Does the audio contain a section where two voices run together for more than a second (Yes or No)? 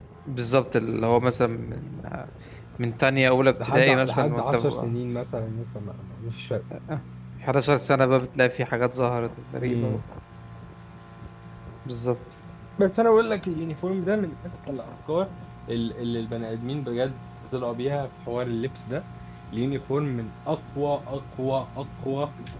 Yes